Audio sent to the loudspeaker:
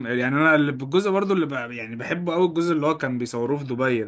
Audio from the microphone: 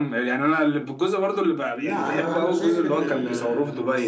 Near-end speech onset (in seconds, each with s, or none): 1.7 s